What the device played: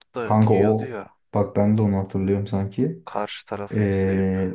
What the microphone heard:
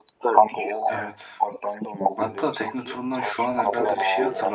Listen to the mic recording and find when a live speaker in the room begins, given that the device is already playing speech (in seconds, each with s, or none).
0.8 s